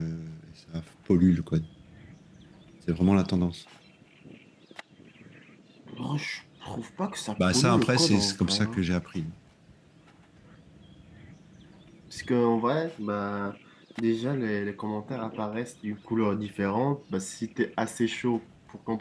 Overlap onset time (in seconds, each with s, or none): 7.4 s